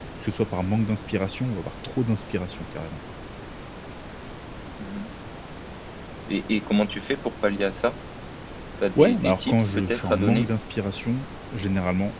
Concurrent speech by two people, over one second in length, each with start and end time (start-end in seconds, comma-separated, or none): 8.9-10.5